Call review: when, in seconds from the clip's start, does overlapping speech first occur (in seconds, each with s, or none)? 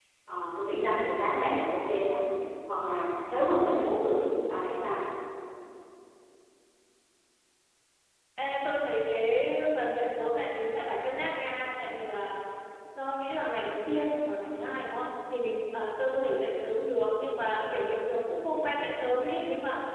none